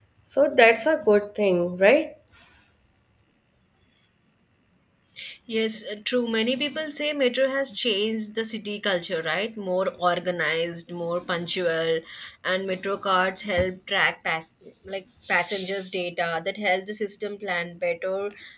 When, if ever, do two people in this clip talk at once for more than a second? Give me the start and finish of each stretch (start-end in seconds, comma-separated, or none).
none